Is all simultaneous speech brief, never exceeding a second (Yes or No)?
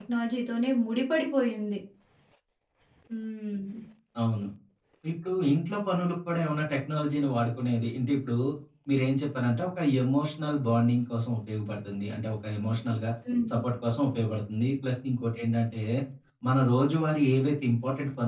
Yes